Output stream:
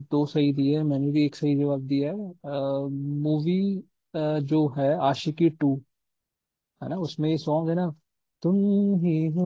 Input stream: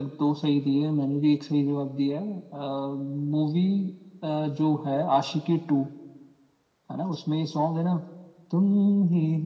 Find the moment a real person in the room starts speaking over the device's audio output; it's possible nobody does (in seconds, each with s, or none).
none